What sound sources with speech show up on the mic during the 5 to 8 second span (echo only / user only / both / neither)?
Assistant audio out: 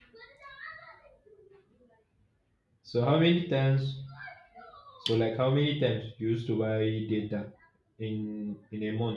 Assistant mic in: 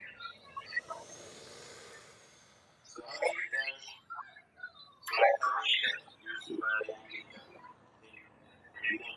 echo only